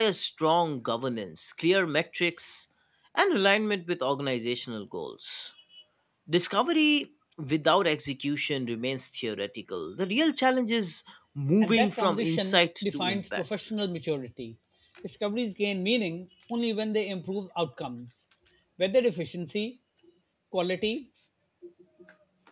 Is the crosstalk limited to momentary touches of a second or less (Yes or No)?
No